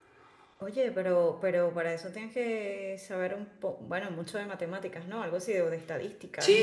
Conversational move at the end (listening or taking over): taking over